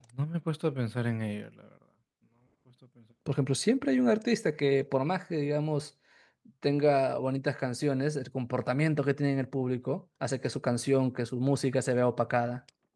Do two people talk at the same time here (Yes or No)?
No